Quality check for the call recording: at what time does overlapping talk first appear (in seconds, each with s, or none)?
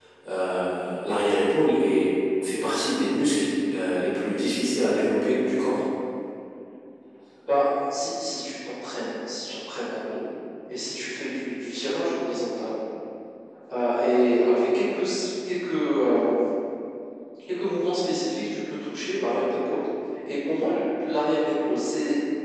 none